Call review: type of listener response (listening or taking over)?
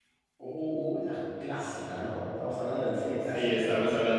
taking over